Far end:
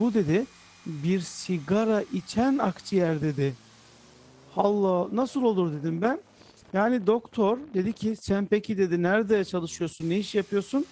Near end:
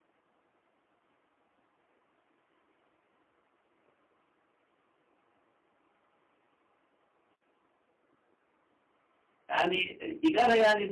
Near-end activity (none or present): present